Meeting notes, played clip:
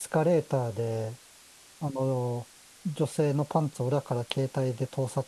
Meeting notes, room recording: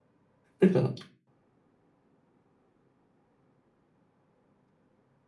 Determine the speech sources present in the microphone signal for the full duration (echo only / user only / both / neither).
user only